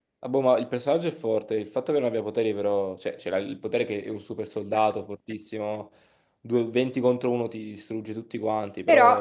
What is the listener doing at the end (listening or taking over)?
taking over